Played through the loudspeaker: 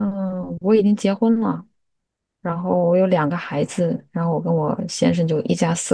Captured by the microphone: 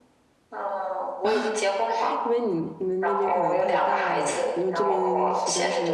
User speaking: Yes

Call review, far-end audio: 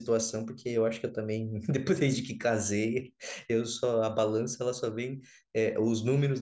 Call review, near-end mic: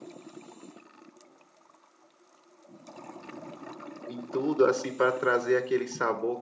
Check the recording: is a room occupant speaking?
Yes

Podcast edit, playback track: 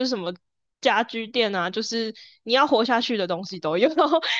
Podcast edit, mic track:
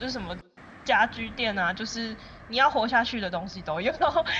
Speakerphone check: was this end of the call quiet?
Yes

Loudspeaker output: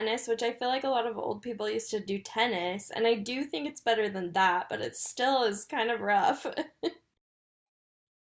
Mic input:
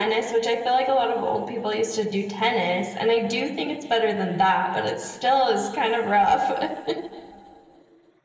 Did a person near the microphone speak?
No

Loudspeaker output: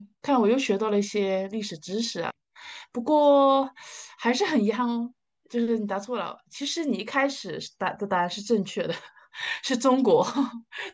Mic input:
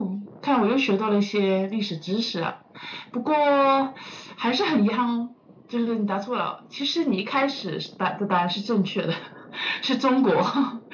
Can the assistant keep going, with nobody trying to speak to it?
Yes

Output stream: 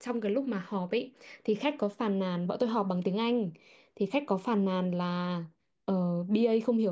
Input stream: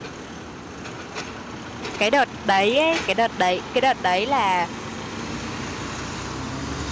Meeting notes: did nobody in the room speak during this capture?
No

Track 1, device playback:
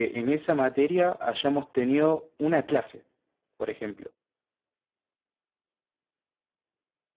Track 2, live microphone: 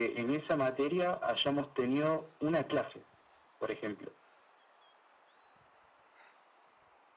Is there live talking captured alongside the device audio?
No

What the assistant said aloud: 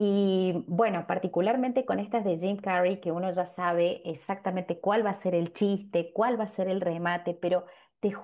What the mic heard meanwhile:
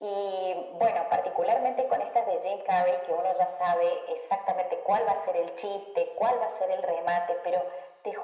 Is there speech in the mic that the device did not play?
No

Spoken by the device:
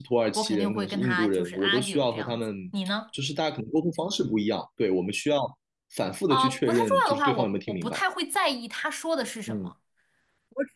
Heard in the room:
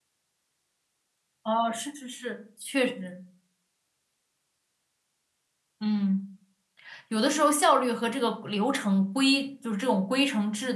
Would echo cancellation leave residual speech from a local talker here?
Yes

